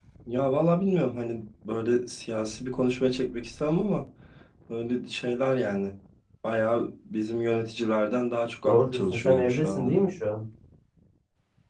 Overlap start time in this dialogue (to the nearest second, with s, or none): 9 s